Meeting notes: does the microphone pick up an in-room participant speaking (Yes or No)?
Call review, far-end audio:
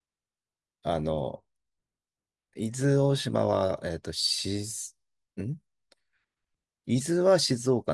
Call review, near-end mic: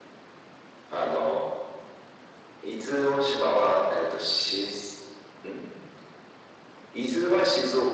No